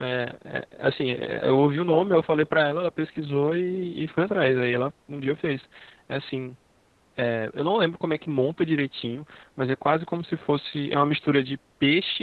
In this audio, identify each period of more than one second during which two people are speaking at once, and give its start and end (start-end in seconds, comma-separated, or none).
none